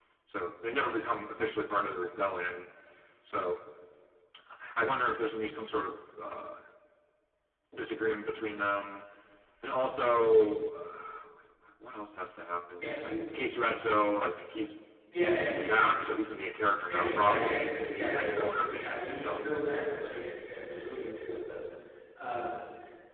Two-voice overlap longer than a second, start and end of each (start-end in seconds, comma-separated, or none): 16.9-19.4